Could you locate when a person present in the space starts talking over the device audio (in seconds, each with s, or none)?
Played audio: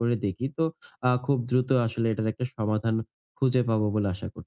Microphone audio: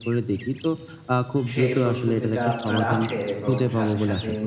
1.5 s